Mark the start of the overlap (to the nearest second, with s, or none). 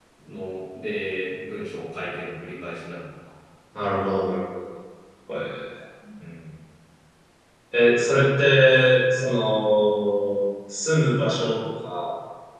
none